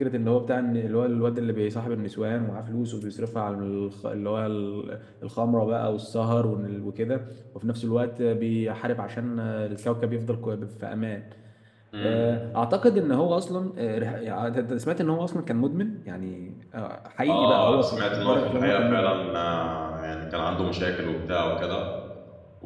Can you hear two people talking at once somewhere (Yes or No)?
Yes